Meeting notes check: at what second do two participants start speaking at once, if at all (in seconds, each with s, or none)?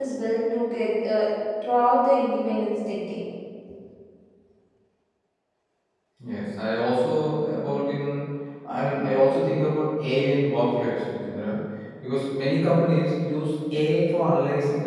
none